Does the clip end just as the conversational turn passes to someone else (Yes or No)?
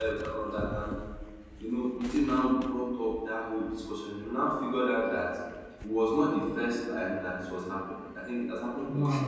No